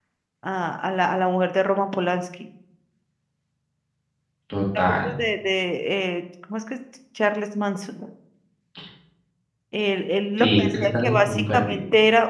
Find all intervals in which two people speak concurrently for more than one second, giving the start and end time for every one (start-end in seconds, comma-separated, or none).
10.4-11.8